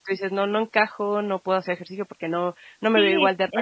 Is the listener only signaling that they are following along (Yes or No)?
No